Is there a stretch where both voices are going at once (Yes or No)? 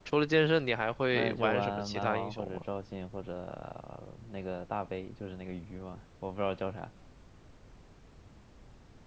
Yes